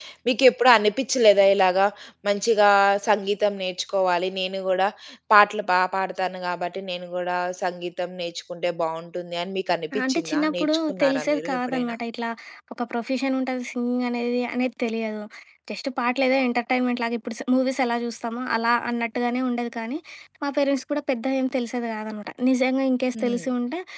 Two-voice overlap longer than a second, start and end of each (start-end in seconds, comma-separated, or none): 10.1-11.9